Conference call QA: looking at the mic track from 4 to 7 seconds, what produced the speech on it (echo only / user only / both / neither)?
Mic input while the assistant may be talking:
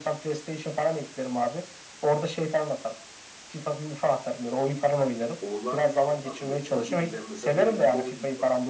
both